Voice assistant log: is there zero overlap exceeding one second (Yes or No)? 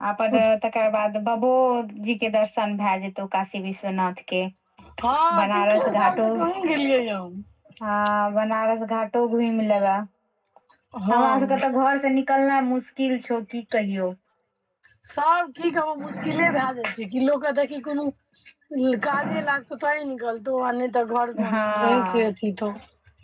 No